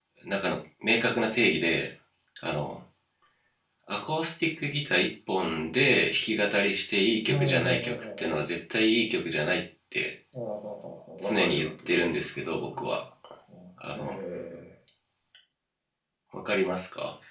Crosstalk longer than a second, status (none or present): present